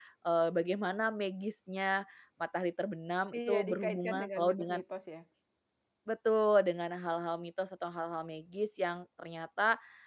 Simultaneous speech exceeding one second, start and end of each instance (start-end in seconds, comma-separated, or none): 3.5-4.8